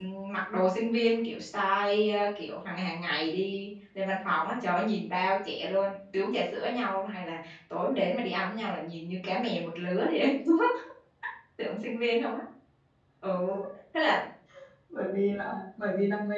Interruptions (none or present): none